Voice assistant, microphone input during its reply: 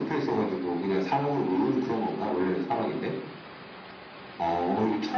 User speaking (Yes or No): No